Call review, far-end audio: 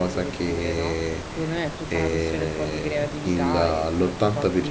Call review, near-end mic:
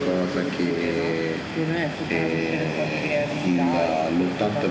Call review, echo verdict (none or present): present